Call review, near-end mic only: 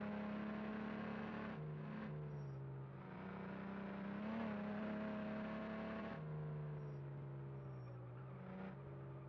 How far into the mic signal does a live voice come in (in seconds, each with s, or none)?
none